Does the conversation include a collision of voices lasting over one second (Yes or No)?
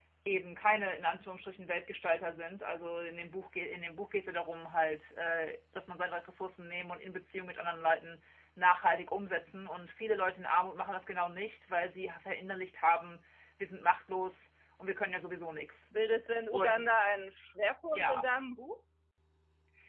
No